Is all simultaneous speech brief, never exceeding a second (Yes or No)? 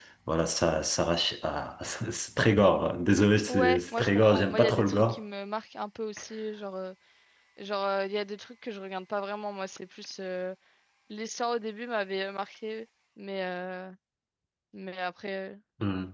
No